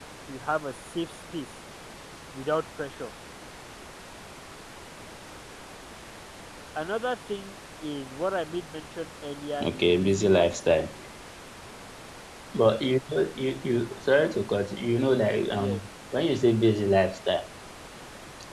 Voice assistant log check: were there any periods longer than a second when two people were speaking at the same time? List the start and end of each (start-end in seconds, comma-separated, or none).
9.6-10.8